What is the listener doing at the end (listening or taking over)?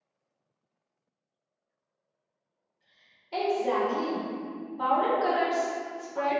taking over